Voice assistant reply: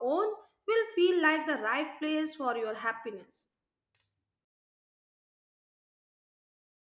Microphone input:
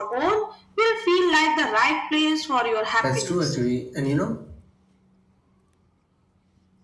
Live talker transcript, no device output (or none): That's true, actually. And you know,